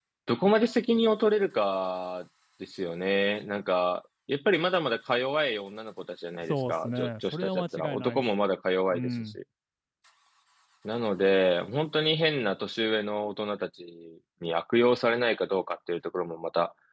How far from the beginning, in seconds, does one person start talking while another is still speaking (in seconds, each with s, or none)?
6.4 s